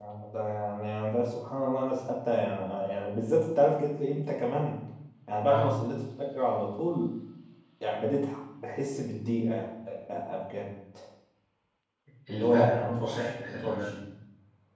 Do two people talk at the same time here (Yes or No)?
Yes